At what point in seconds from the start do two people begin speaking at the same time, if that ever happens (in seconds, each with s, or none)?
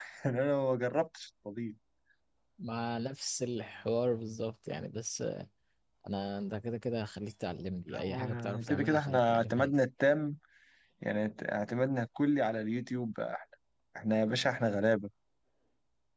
7.9 s